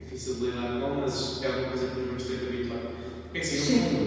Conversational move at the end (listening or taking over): listening